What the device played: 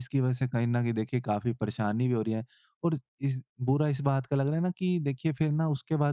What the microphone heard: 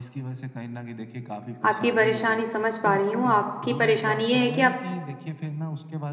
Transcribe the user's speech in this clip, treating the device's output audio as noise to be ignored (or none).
आपकी परेशानी समझ पा रही हूँ। आपकी परेशानी ये है कि आप